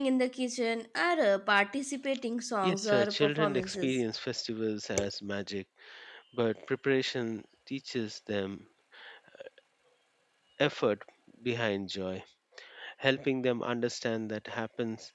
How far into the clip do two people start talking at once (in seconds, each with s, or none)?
2.6 s